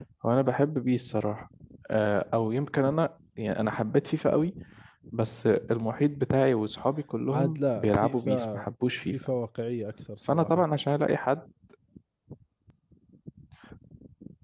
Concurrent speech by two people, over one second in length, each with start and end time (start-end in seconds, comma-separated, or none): 7.3-8.7